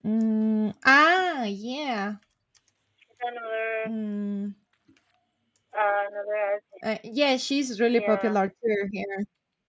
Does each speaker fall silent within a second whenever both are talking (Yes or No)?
Yes